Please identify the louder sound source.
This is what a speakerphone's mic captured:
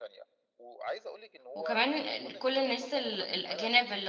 user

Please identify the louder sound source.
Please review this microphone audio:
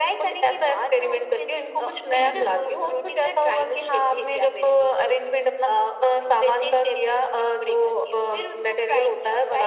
echo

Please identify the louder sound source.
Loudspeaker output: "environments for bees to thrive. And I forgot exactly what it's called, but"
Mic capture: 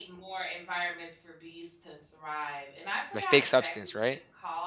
user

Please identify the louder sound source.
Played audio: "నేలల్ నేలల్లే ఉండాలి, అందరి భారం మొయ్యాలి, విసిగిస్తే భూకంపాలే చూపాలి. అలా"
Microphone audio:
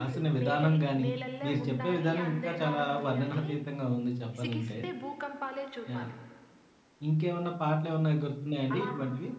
user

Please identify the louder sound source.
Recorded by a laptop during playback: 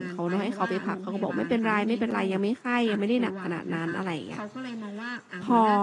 user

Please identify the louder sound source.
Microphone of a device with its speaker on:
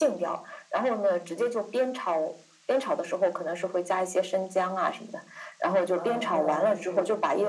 echo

